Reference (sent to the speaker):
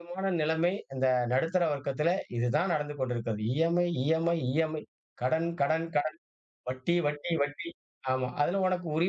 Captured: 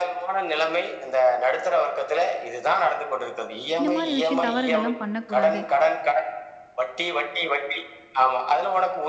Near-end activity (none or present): present